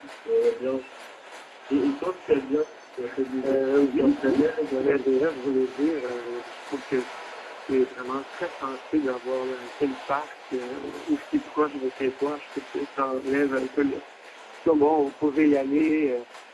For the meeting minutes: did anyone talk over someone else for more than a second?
Yes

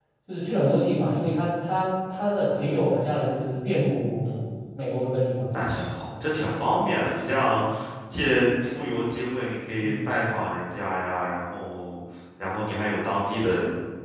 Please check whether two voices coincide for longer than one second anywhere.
No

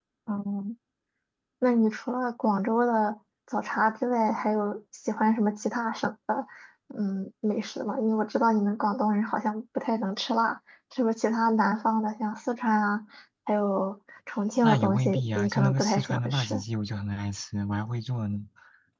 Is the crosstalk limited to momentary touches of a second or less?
No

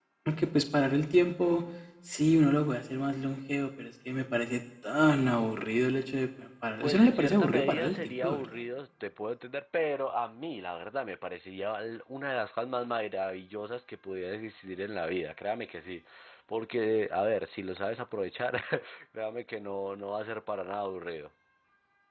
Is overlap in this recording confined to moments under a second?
No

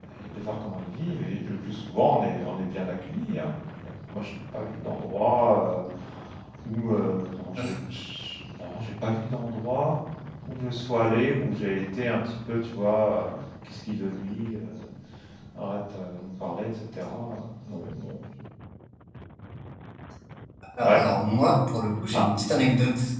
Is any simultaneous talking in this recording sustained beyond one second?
No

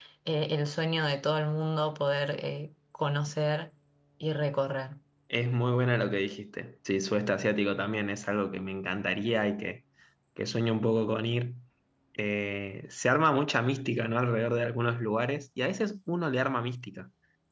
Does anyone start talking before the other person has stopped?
No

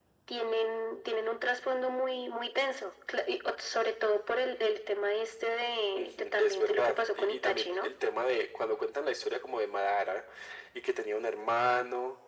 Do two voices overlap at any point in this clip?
Yes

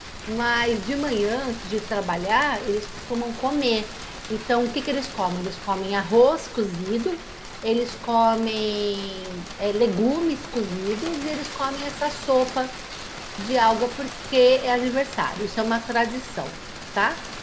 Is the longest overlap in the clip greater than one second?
No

